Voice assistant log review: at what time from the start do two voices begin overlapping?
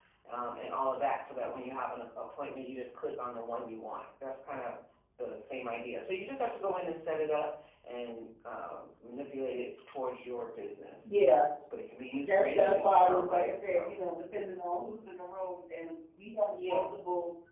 12.2 s

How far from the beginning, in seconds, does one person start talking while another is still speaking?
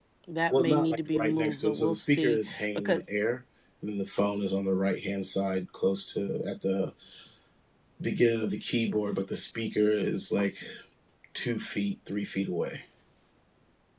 0.5 s

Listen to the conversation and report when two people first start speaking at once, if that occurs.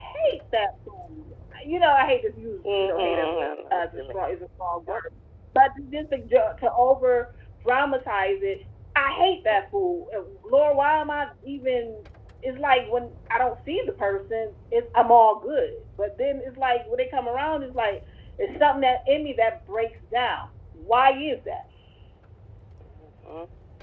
2.6 s

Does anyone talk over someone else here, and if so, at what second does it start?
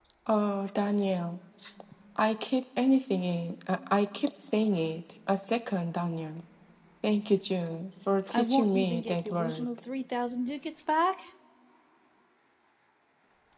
8.3 s

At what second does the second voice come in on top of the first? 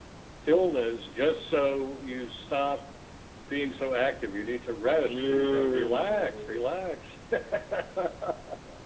5.0 s

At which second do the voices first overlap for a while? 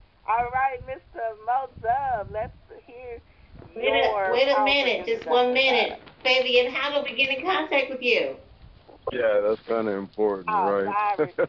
3.8 s

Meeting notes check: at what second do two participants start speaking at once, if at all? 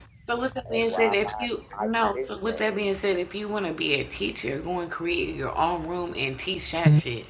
0.7 s

